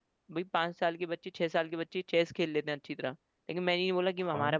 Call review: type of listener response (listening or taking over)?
listening